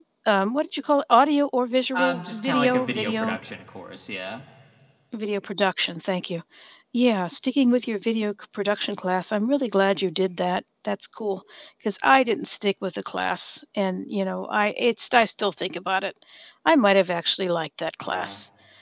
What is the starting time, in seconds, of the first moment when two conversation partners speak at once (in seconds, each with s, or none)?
1.9 s